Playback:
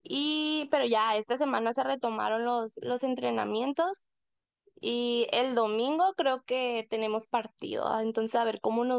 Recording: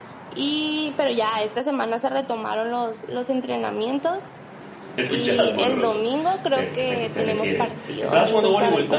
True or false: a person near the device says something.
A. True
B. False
A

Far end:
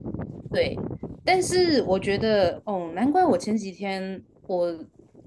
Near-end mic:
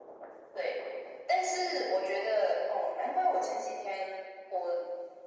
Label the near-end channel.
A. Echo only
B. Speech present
A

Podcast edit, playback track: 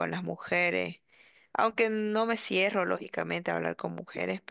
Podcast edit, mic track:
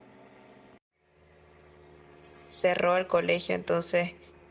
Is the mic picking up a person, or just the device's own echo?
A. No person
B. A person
B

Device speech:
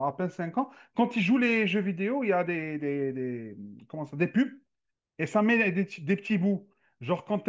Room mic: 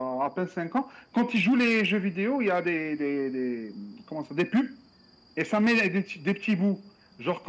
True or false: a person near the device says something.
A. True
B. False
B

